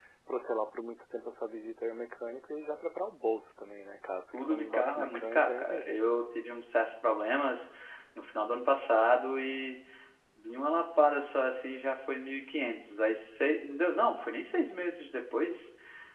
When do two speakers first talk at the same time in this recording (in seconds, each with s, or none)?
4.3 s